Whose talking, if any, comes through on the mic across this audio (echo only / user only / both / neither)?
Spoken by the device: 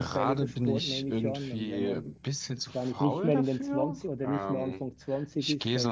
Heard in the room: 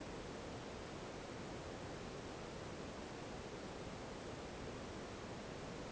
neither